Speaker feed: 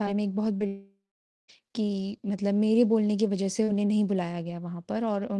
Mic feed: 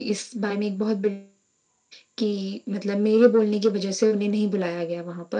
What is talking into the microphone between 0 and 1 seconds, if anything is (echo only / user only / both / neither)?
echo only